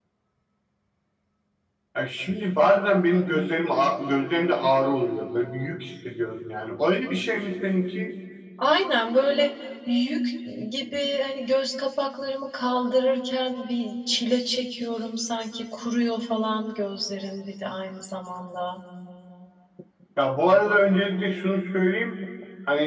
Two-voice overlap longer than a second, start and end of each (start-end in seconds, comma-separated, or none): none